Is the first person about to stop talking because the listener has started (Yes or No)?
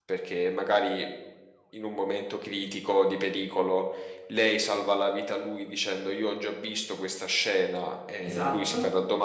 No